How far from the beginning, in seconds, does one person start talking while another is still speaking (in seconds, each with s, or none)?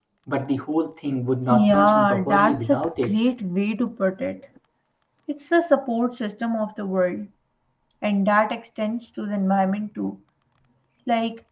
1.5 s